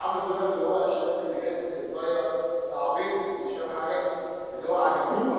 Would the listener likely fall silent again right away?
No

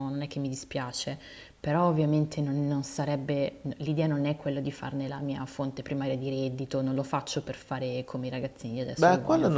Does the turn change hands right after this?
Yes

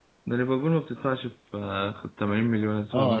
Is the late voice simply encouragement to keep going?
No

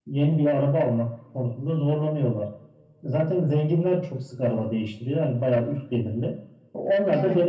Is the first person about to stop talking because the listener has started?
No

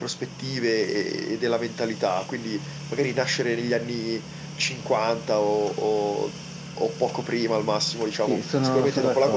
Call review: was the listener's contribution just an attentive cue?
No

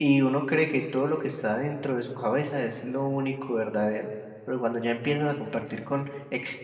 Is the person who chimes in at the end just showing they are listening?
Yes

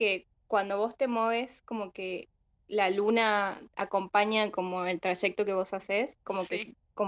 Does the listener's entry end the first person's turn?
No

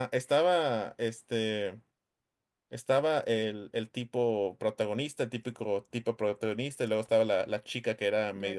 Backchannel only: Yes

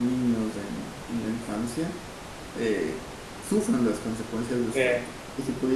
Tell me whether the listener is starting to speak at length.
No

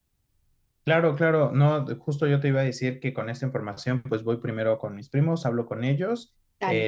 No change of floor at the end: Yes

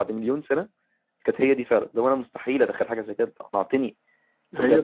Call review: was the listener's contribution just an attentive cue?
Yes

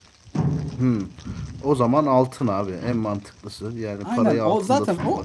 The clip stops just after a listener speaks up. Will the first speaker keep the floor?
No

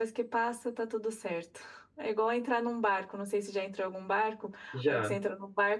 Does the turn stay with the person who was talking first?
Yes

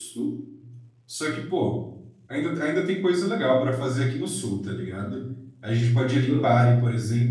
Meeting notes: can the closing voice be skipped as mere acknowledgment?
Yes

